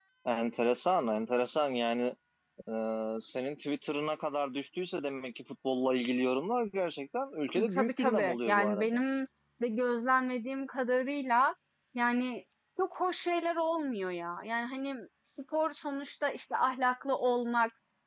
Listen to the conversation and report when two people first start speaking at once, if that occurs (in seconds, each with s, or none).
7.5 s